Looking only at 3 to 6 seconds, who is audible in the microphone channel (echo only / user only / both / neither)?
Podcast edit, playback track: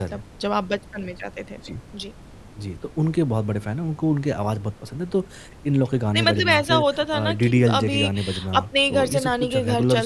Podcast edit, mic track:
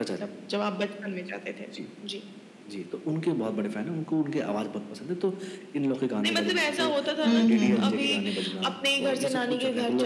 echo only